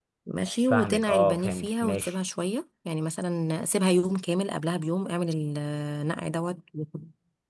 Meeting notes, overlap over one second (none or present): present